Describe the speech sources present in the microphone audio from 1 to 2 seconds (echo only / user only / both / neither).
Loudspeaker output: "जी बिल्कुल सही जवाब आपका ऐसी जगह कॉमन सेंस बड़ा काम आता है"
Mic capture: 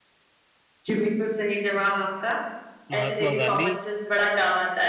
echo only